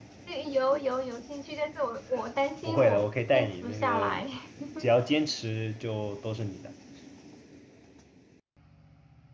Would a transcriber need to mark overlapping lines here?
Yes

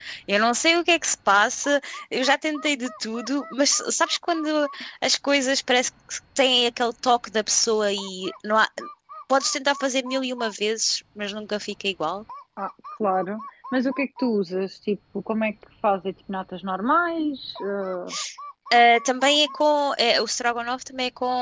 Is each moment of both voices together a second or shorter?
Yes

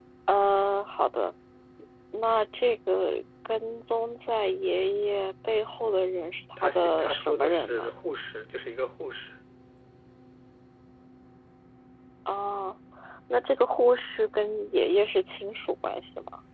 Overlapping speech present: Yes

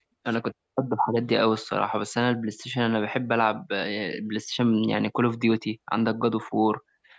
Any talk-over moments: No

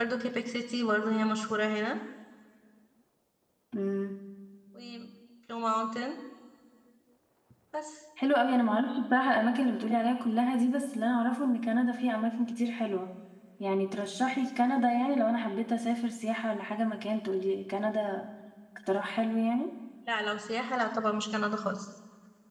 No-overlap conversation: Yes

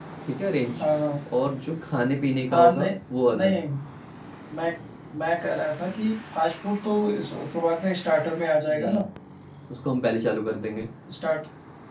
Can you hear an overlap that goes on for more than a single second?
No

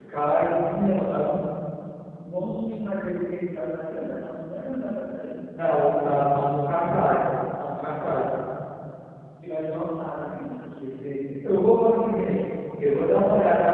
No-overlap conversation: Yes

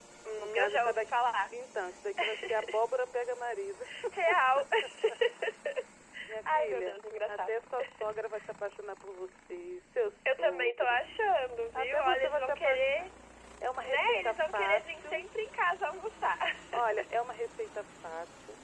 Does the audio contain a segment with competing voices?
Yes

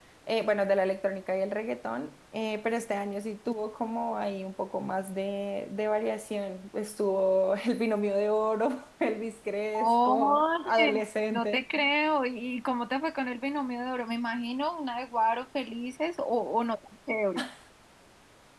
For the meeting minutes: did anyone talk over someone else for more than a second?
Yes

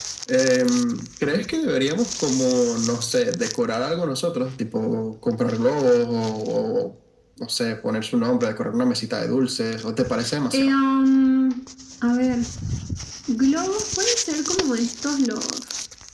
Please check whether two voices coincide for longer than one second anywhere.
No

